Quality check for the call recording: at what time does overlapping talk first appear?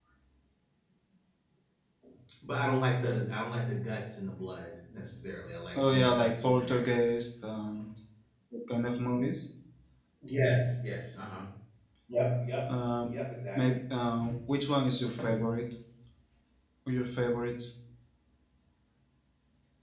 5.8 s

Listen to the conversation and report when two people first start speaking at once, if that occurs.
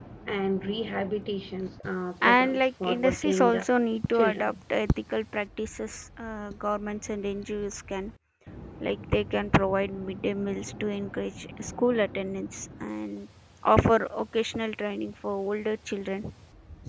2.2 s

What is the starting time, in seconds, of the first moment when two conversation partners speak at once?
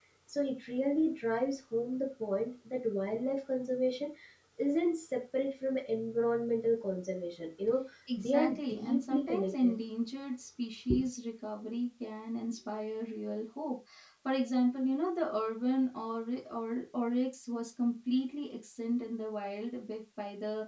8.1 s

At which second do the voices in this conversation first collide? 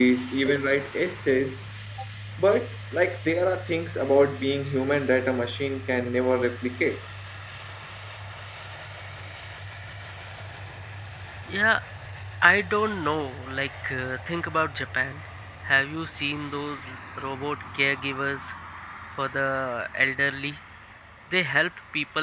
none

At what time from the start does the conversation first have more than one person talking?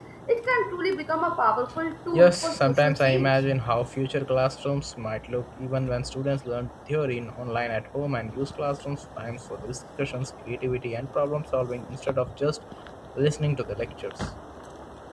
2.1 s

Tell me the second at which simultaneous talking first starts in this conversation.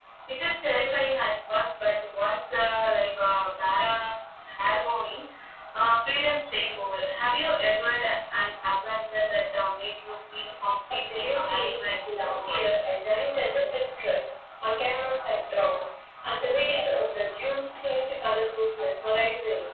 10.9 s

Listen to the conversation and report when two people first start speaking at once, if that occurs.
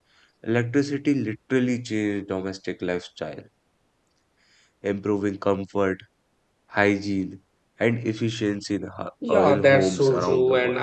9.2 s

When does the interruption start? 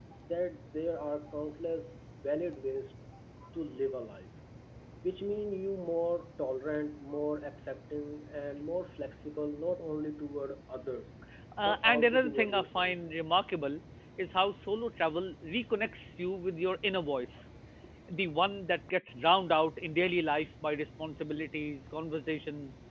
11.6 s

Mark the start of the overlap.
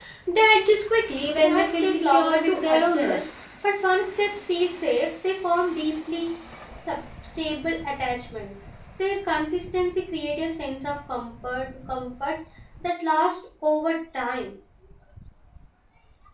1.4 s

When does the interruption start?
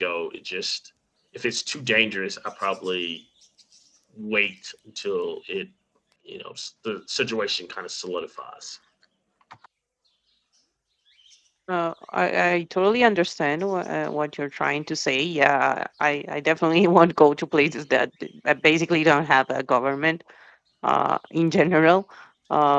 none

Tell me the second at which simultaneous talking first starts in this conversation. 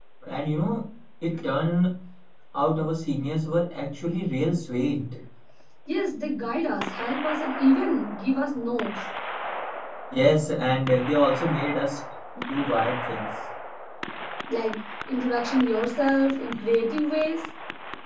none

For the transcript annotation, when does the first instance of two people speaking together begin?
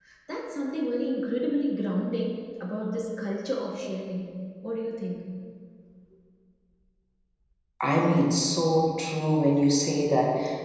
none

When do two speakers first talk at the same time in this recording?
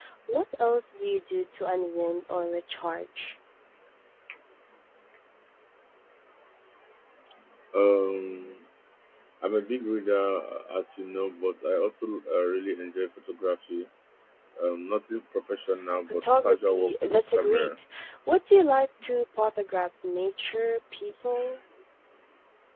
16.2 s

